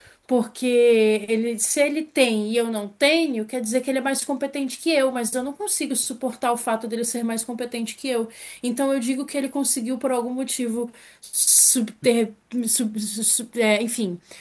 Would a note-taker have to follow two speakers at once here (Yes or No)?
No